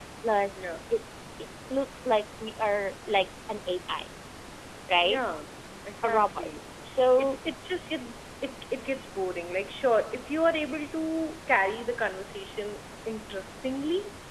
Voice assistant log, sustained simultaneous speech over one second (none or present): none